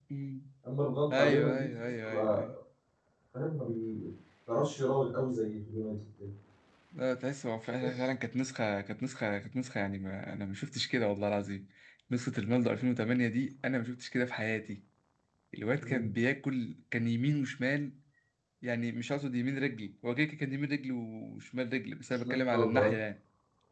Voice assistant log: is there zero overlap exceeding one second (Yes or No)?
No